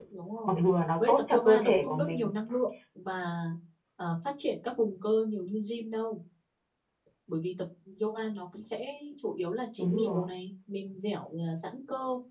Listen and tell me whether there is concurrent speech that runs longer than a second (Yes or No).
Yes